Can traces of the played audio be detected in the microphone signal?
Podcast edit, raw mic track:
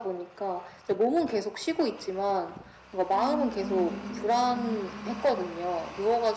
Yes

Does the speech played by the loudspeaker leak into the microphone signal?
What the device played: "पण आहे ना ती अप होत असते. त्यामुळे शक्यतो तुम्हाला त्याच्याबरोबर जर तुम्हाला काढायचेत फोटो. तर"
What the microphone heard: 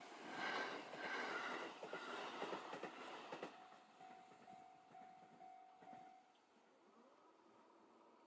No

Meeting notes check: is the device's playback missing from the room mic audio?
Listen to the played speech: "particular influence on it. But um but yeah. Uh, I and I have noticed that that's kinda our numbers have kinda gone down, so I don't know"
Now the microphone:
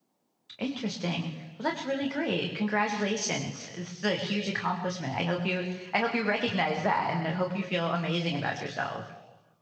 Yes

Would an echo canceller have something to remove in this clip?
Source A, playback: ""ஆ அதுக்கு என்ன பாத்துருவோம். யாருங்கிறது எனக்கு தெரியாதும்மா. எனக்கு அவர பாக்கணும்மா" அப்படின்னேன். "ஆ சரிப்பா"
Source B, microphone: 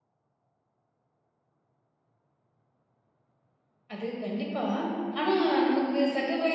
No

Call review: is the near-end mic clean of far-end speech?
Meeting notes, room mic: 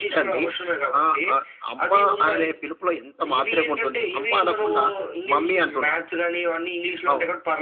No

